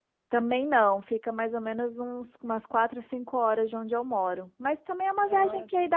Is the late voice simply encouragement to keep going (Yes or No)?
Yes